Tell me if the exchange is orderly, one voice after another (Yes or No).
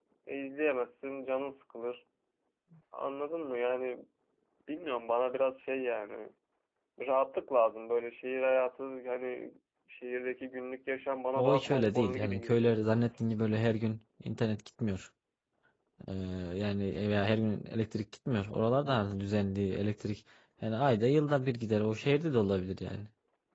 No